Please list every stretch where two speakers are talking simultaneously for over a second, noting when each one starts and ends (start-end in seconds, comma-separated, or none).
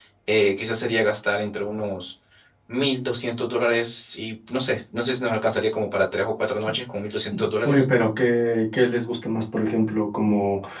none